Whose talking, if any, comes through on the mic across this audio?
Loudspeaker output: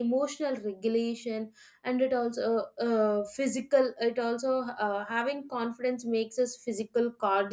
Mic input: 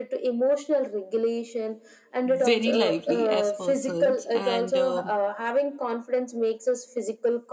both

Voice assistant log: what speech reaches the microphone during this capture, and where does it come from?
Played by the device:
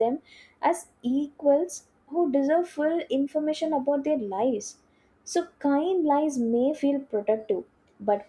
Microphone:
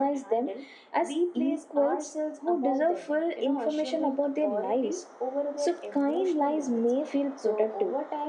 both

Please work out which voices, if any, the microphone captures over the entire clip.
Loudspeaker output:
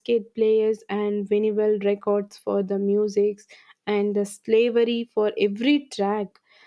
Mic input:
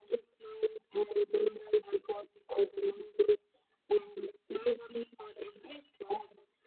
echo only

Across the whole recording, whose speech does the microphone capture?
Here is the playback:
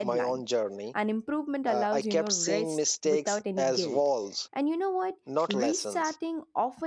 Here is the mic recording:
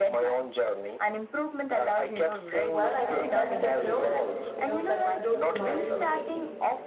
both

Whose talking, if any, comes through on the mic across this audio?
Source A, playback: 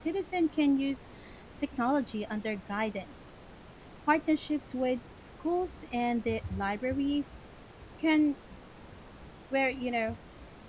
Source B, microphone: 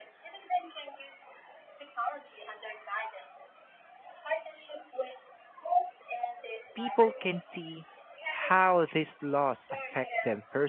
both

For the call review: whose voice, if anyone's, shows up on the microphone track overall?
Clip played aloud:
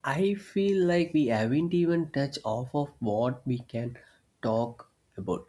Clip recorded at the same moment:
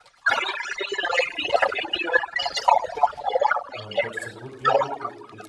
both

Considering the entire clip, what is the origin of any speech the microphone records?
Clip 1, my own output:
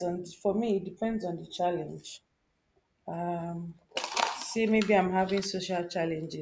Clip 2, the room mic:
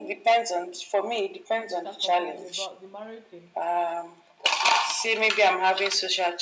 both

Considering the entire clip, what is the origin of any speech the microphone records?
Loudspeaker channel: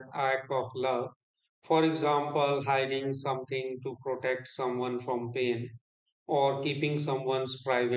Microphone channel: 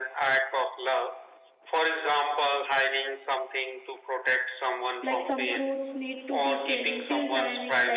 both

